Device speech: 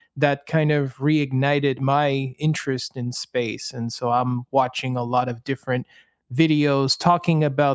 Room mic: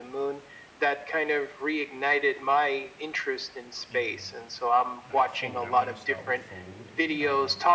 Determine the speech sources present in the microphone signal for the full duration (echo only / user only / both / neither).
both